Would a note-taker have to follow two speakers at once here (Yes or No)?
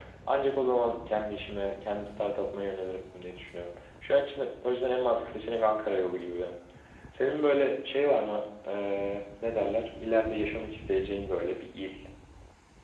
No